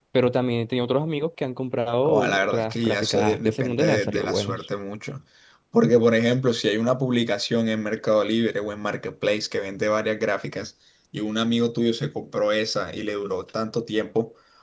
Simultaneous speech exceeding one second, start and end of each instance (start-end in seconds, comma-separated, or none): 2.0-4.7